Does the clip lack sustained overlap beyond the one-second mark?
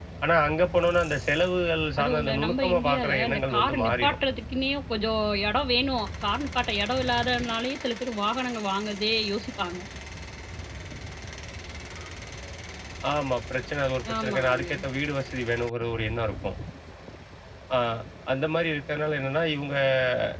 No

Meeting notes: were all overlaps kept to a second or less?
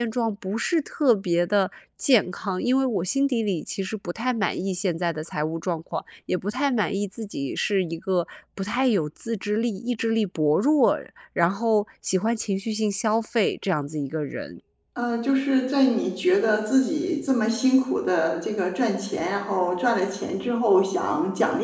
Yes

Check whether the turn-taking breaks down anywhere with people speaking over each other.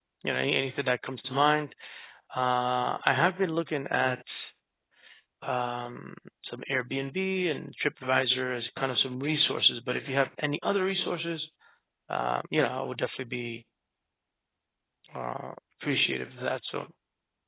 No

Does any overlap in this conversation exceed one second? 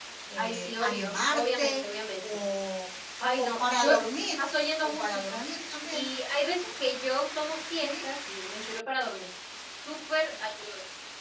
Yes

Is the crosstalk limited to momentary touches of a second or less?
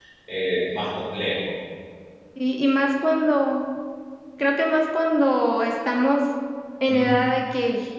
Yes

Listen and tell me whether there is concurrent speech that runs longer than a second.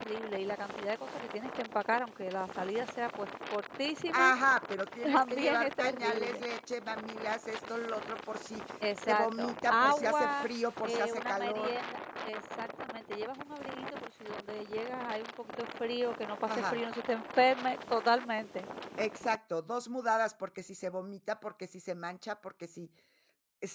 Yes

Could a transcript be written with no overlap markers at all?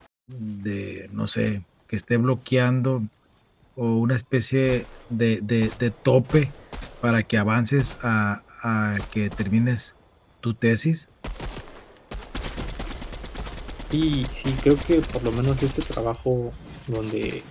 Yes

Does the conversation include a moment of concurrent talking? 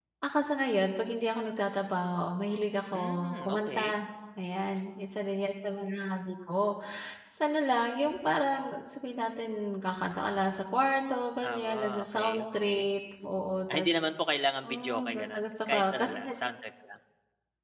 Yes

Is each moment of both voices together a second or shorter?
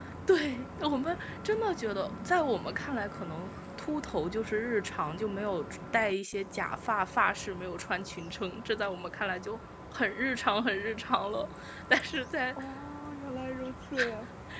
Yes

